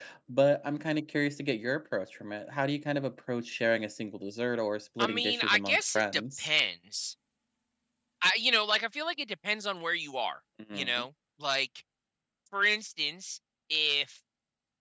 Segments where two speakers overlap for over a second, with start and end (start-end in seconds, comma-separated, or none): 5.0-6.5